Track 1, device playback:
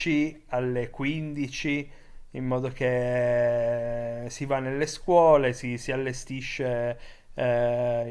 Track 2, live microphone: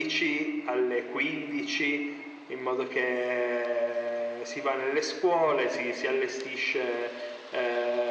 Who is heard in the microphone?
echo only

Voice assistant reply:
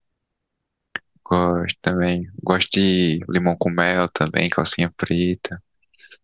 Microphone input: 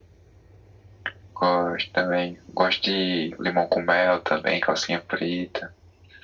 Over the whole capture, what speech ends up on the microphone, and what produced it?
echo only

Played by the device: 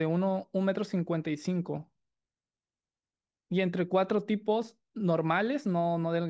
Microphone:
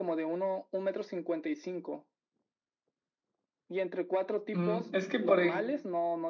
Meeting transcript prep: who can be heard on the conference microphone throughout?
both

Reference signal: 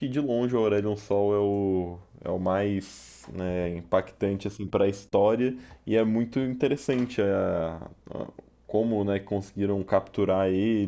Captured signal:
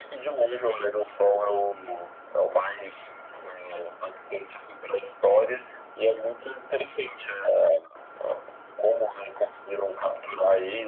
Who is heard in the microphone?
echo only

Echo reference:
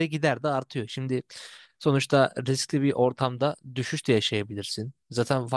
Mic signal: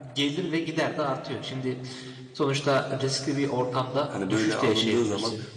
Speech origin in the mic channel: both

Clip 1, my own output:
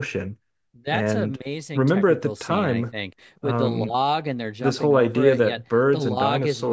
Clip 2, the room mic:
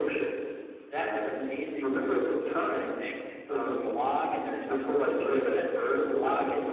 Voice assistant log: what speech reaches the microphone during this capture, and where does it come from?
echo only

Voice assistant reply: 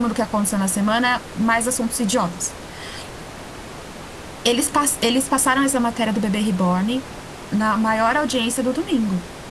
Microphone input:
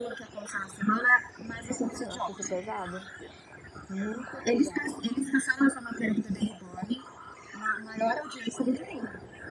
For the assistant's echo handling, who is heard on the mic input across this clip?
both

